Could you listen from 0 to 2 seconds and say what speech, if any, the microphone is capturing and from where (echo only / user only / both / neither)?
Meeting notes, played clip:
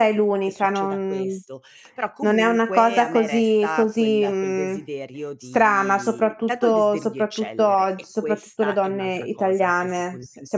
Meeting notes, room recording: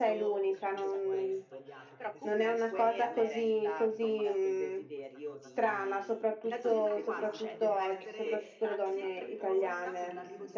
both